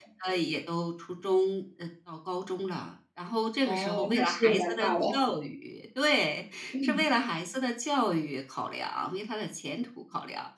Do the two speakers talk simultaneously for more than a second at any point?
Yes, from 3.7 s

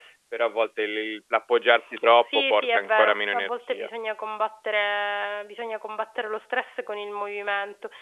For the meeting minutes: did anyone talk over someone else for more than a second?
Yes, from 2.2 s

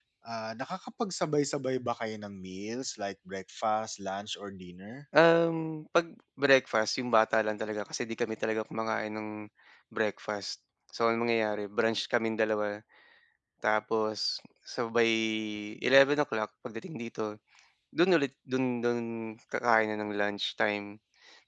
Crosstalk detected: No

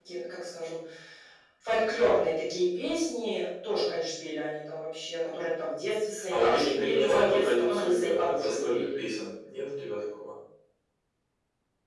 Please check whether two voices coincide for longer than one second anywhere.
Yes, from 6.3 s

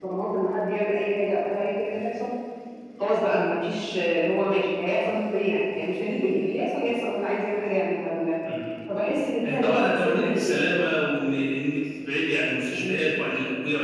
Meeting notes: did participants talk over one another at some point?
Yes, from 9.4 s

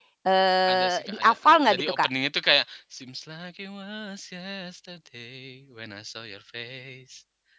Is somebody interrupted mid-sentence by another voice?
Yes, from 0.7 s

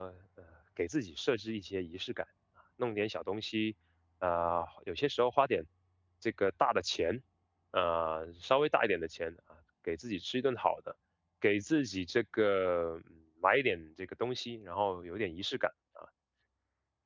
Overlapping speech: No

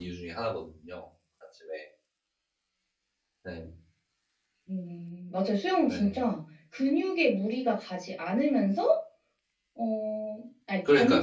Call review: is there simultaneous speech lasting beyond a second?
No

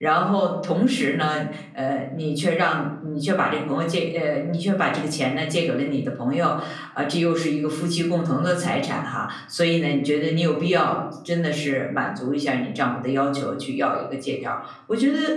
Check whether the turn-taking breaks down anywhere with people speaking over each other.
No

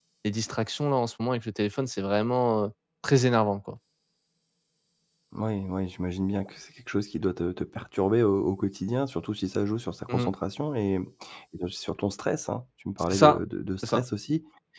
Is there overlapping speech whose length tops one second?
No

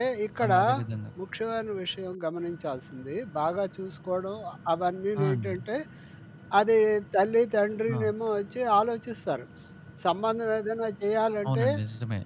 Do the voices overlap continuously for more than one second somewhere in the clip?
No

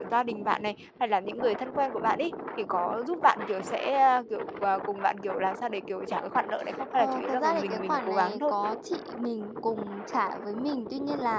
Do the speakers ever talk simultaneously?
Yes, from 6.9 s

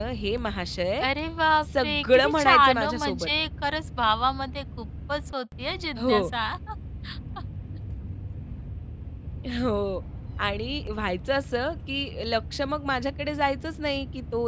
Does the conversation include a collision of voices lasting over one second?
Yes, from 1.8 s

